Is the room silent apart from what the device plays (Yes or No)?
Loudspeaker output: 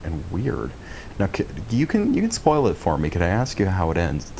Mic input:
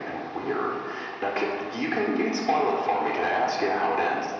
Yes